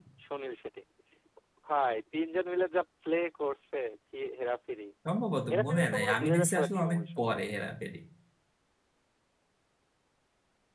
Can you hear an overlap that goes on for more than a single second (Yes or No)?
Yes